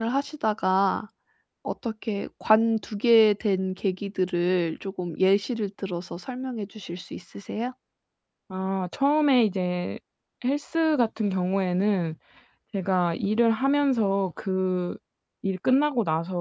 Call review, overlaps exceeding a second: none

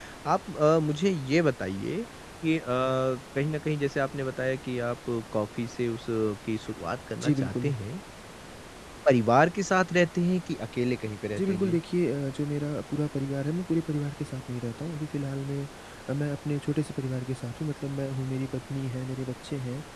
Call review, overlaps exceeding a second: none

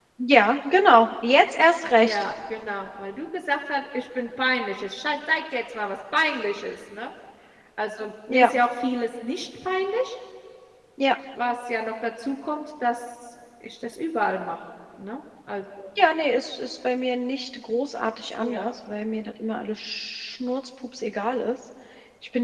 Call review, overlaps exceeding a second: none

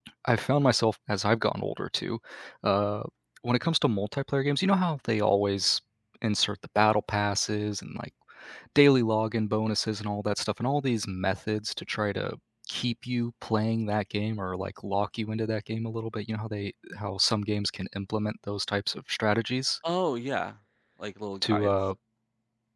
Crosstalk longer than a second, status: none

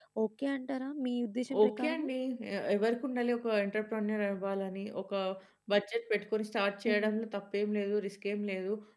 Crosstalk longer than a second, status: none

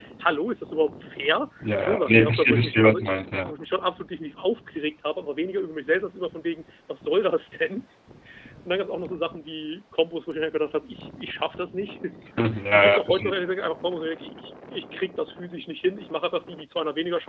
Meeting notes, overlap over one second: present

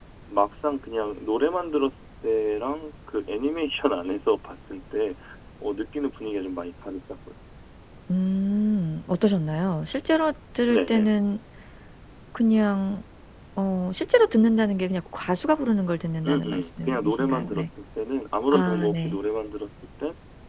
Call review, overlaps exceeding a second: present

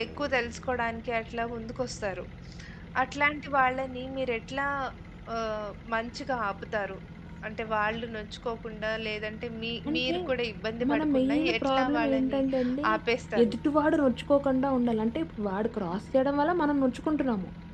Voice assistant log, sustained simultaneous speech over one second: present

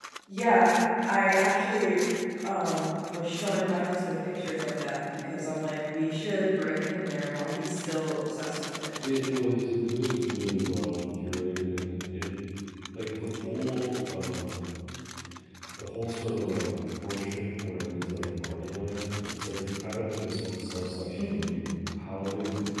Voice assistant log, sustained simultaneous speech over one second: none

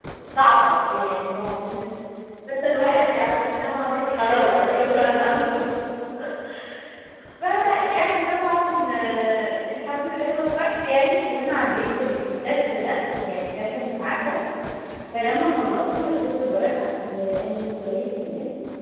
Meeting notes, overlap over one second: present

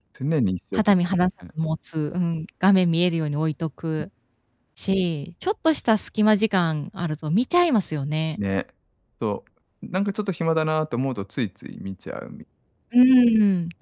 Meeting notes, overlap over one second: none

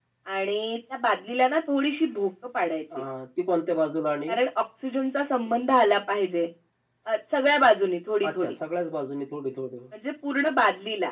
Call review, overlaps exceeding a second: none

